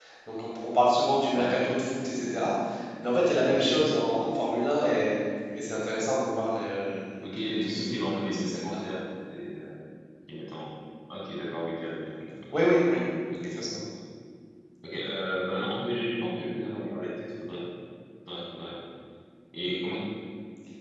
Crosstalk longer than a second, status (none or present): present